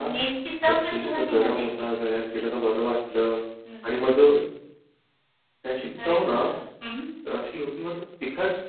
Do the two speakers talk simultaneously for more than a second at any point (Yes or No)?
Yes